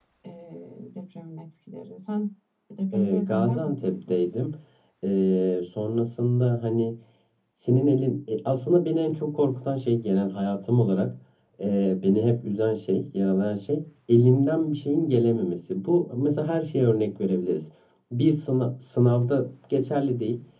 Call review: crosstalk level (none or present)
present